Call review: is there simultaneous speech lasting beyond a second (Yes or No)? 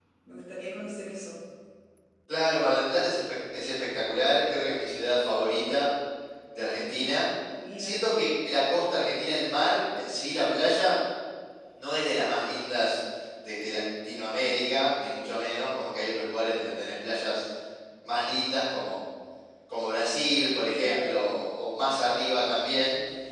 No